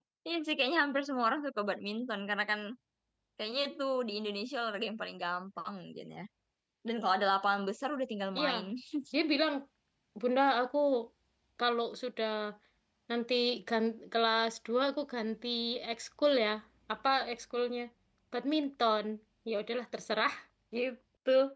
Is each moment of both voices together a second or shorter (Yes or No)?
Yes